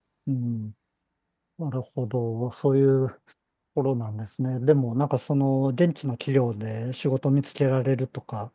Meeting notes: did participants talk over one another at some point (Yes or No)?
No